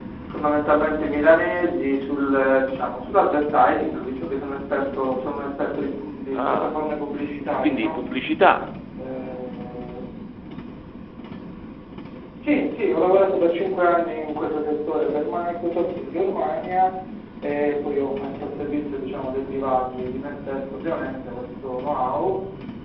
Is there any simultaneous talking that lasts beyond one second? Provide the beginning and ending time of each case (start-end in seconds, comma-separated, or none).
none